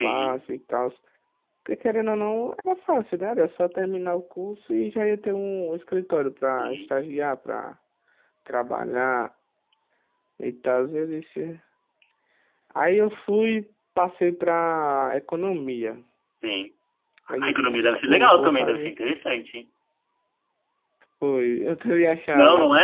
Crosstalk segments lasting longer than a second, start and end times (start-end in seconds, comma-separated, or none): 17.4-18.9